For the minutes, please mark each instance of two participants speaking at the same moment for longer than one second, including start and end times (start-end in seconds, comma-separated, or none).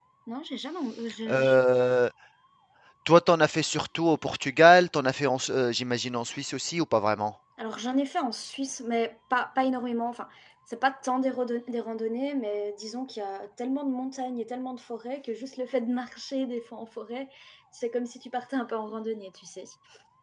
none